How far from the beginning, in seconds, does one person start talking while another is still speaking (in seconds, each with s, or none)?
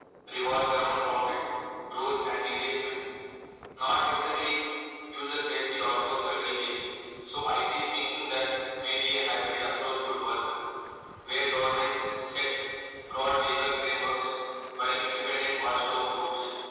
none